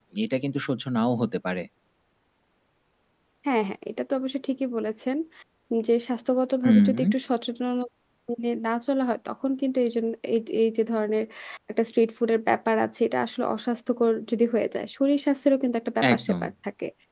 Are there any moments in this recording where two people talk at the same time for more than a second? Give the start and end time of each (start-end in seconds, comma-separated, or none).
none